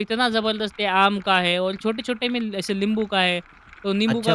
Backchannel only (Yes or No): No